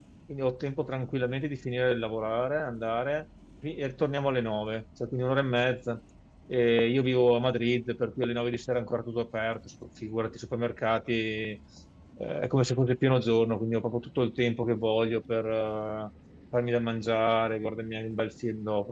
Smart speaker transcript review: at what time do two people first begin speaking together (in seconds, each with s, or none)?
none